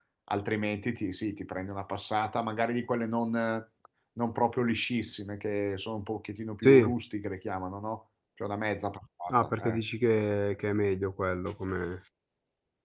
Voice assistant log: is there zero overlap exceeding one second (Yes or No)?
Yes